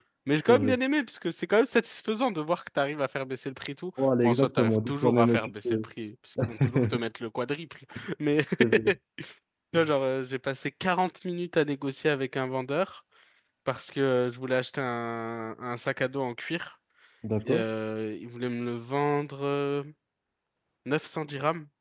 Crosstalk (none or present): present